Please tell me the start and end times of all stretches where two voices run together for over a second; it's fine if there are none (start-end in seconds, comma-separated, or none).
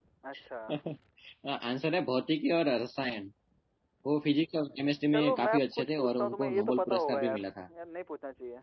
5.1-7.5